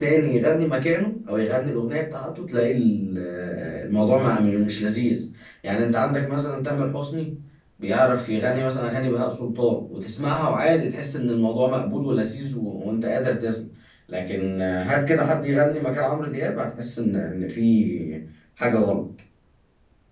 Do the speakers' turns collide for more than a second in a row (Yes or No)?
No